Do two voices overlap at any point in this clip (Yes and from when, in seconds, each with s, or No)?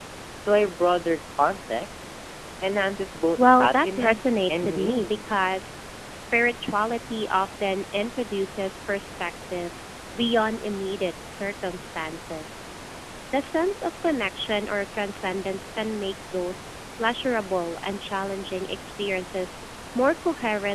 Yes, from 3.4 s